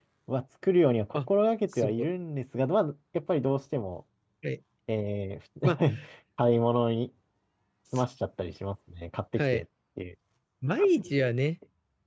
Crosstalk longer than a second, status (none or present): none